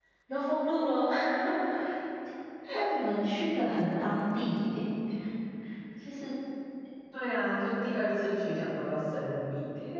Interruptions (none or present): none